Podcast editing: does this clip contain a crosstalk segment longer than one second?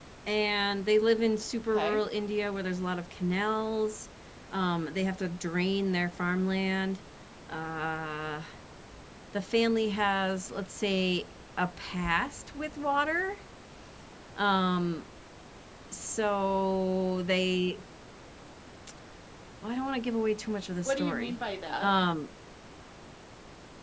No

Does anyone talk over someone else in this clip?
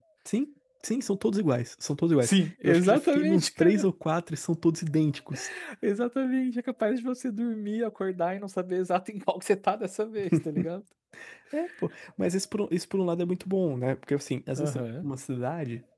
Yes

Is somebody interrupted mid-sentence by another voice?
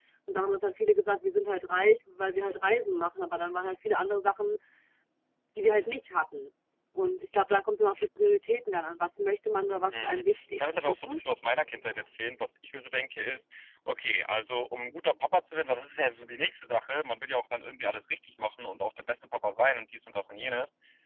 Yes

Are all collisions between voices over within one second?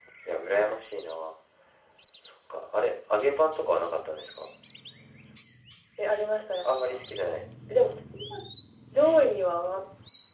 Yes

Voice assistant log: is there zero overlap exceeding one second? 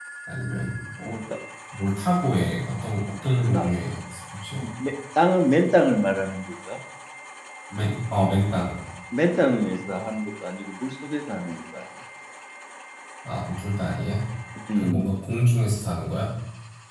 Yes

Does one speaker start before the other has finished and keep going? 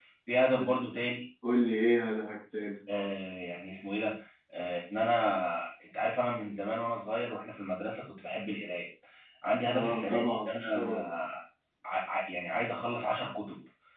Yes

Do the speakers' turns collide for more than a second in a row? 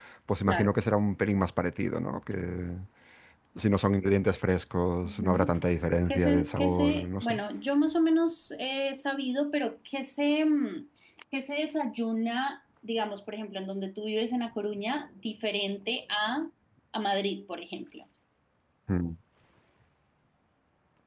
Yes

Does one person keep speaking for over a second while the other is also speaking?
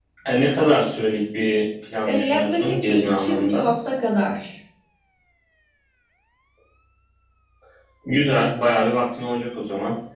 Yes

